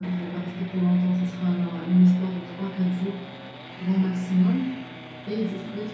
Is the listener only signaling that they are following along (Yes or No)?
Yes